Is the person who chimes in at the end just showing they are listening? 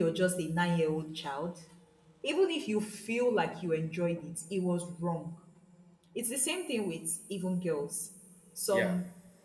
Yes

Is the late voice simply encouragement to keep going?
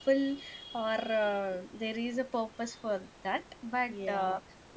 Yes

